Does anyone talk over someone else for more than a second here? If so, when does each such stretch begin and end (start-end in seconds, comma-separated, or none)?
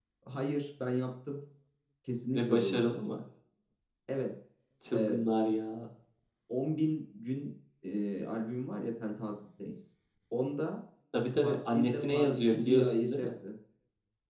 11.4-13.3